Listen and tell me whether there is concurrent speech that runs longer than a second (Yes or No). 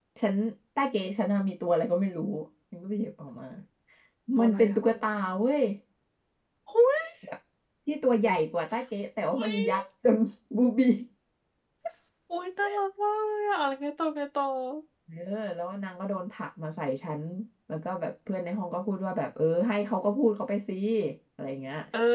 No